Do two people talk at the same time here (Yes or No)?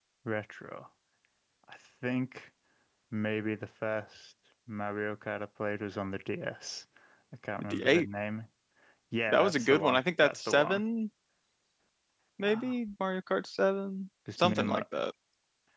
Yes